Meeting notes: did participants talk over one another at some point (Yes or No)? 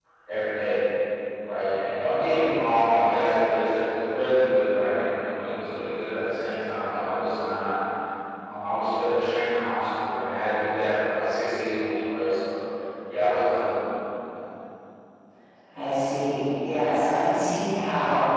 No